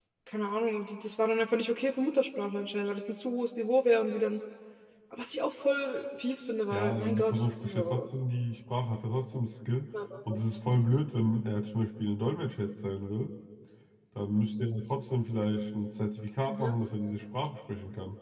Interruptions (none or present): present